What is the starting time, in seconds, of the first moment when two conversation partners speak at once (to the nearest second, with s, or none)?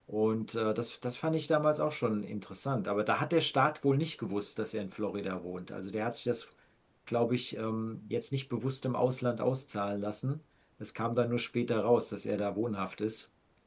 none